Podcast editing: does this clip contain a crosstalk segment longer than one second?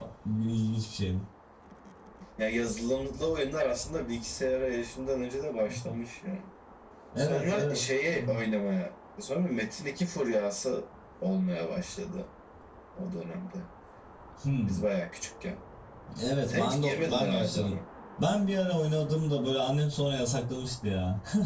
Yes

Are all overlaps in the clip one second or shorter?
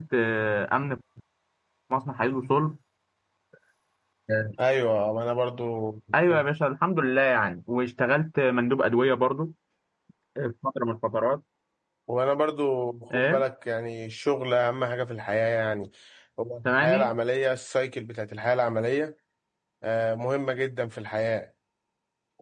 Yes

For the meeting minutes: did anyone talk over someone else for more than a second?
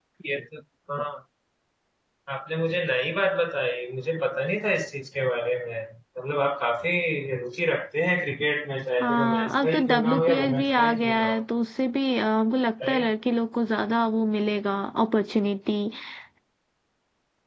Yes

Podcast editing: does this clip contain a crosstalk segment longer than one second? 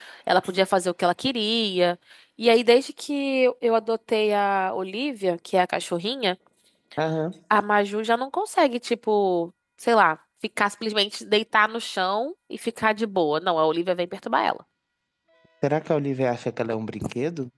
No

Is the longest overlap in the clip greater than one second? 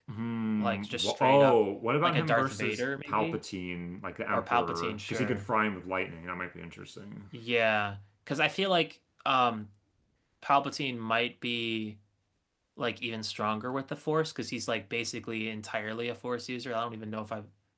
Yes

